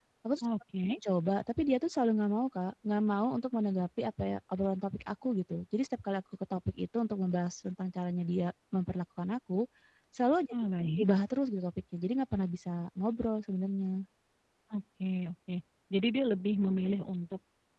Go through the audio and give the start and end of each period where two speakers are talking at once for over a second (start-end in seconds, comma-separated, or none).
none